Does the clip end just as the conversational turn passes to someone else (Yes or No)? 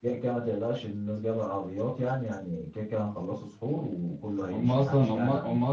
Yes